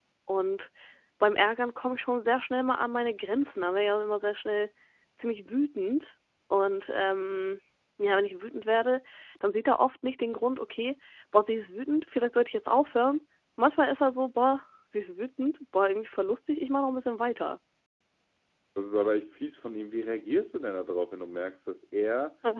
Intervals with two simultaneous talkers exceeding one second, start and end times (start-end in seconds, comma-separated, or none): none